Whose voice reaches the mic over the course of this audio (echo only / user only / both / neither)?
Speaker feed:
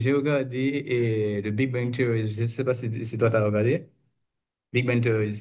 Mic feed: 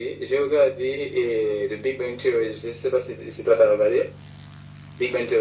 echo only